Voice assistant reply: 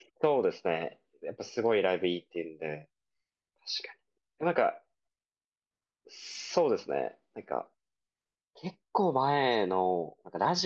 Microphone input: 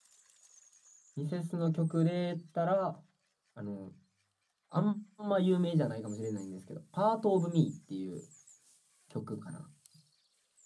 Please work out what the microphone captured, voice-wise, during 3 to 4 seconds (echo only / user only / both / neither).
user only